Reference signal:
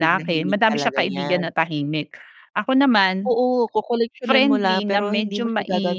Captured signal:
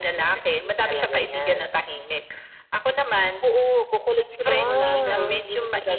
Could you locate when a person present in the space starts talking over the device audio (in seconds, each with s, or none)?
4.5 s